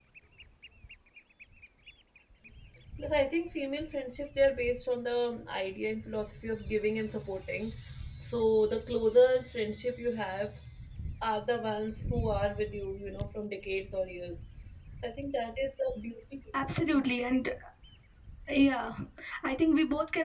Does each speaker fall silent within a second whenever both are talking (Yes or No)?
Yes